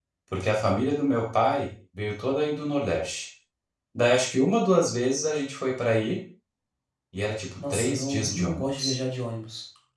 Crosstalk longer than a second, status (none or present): present